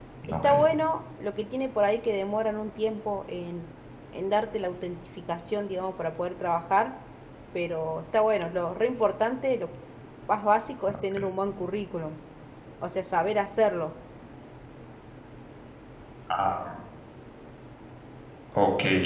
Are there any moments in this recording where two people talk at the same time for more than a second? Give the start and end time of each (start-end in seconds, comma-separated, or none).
none